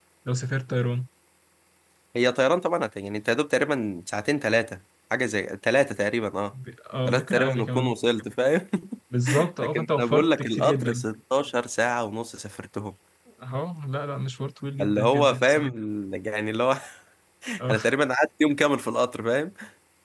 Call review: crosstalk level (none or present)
present